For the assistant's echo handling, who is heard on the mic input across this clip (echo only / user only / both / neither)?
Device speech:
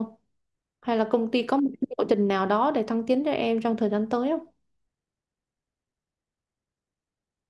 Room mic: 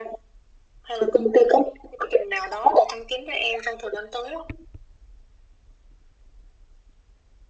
echo only